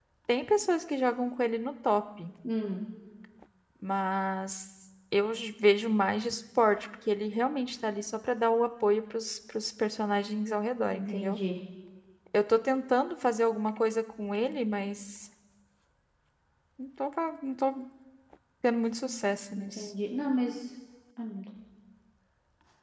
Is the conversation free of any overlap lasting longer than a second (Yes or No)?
Yes